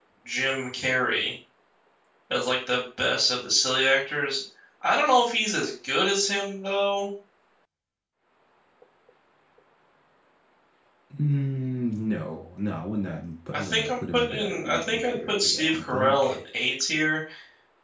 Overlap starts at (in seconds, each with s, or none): 13.5 s